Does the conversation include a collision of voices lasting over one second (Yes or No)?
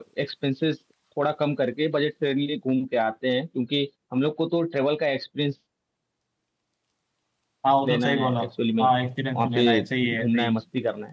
Yes